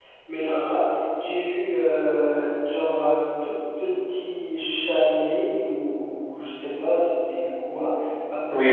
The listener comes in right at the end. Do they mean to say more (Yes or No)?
Yes